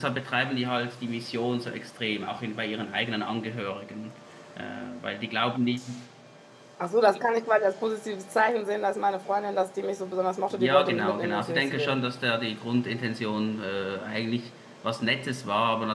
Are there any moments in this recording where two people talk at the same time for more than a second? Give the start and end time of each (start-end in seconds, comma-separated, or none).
10.5-12.0